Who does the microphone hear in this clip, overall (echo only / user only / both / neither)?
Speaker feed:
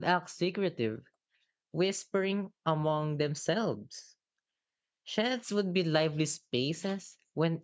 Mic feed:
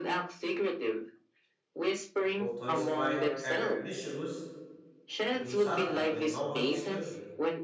both